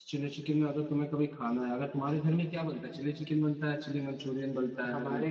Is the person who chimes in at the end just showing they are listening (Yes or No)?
No